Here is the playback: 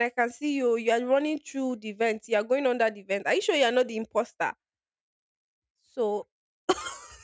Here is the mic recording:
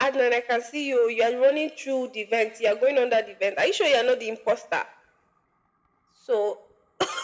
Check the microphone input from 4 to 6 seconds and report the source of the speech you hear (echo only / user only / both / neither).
echo only